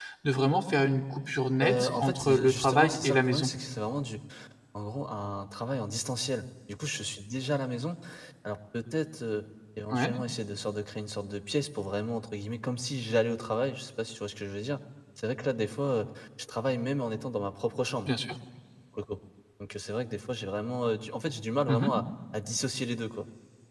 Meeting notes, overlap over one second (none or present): present